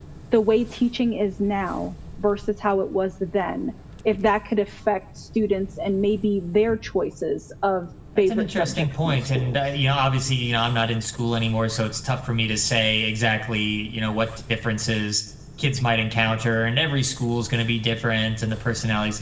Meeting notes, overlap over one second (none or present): present